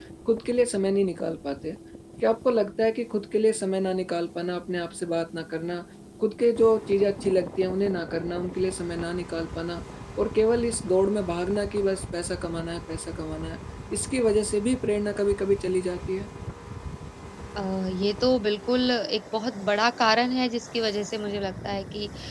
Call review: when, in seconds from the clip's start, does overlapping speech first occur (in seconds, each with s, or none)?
none